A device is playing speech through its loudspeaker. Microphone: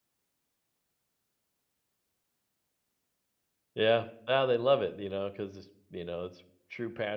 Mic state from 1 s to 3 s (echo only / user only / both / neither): neither